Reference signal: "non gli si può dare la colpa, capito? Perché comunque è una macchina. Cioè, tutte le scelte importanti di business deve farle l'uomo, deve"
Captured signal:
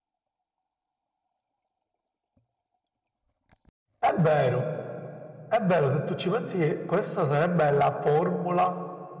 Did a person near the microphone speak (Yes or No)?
Yes